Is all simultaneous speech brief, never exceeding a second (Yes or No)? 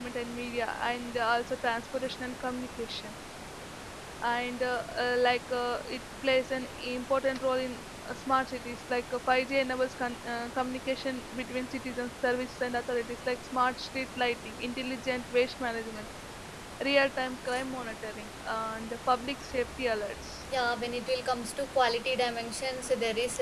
Yes